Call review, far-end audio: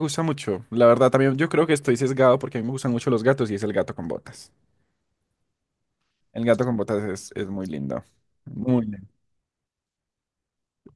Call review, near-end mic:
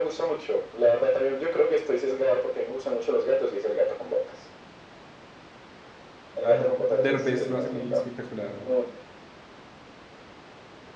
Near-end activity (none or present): present